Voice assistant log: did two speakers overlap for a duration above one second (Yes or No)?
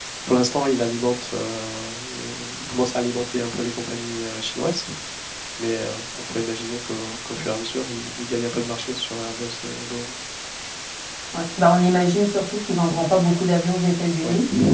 No